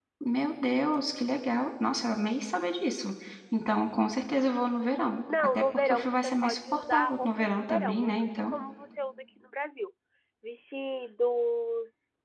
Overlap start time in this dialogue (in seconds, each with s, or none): 5.3 s